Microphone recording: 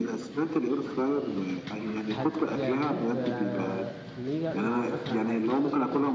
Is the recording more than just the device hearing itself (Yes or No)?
Yes